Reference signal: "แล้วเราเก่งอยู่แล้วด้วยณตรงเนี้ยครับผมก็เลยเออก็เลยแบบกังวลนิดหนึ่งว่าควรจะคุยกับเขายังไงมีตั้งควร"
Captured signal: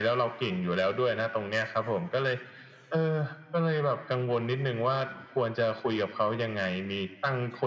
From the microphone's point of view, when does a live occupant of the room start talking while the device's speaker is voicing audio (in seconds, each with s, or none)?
none